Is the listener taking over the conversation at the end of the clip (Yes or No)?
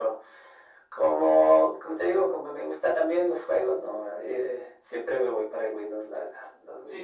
Yes